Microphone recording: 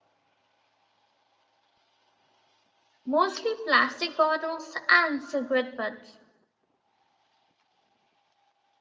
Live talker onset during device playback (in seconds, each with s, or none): 3.0 s